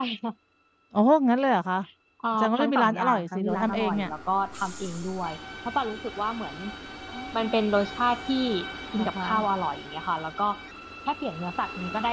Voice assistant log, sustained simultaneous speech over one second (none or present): present